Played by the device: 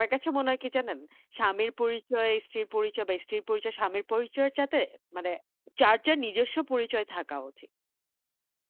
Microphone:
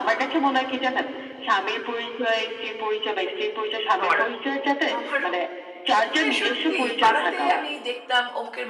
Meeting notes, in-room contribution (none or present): present